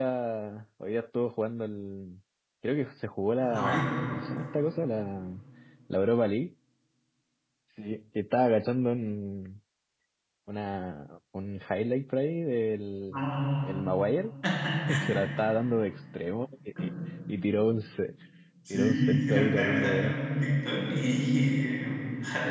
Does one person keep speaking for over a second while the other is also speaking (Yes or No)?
Yes